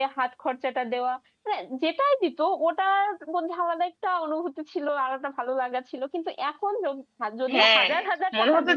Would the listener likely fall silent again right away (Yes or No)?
No